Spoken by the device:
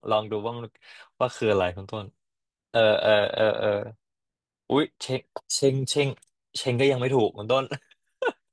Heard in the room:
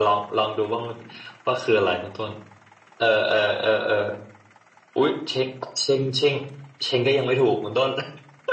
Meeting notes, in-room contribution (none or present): none